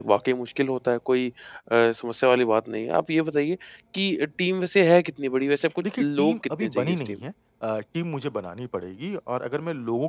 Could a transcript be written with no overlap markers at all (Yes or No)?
No